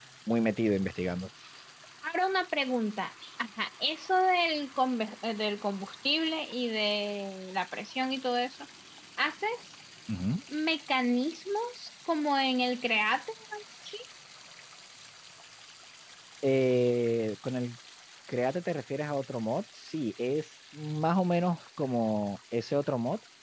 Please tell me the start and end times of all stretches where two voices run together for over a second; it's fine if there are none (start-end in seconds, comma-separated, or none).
none